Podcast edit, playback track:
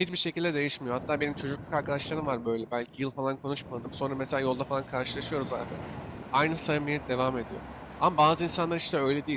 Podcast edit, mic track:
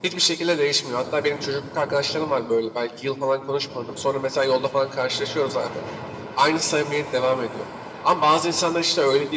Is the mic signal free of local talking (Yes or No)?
Yes